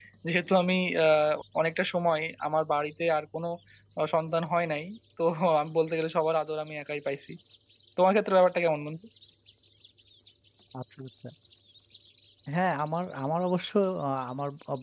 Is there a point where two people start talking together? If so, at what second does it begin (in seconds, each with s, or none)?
none